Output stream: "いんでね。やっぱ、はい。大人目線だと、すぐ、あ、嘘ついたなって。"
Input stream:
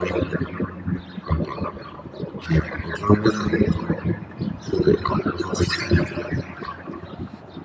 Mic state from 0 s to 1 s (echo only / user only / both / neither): echo only